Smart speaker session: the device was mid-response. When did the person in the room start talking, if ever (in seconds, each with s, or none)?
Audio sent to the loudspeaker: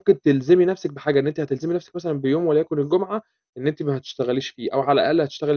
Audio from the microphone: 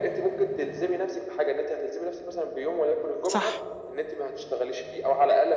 3.3 s